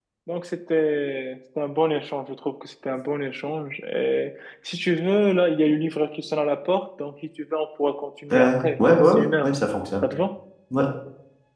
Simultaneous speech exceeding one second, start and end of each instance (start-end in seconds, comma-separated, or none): 8.3-9.5